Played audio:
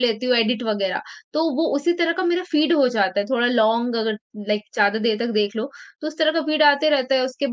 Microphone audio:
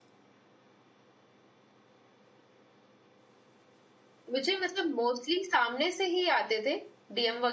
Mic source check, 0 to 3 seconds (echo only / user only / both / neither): neither